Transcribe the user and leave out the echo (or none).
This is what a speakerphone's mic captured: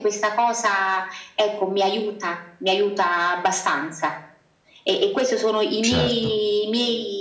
Certo.